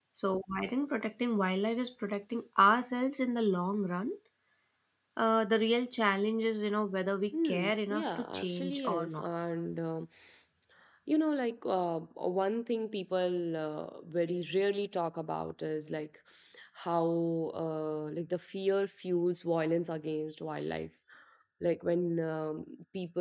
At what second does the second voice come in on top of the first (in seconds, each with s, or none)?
7.3 s